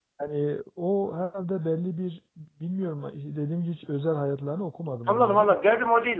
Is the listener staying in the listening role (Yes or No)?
No